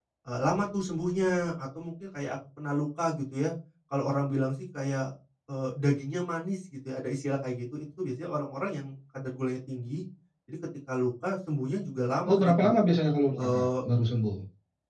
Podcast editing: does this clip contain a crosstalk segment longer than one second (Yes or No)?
No